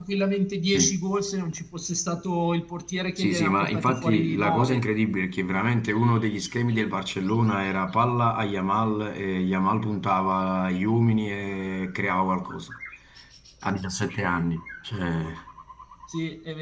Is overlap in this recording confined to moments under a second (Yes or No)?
No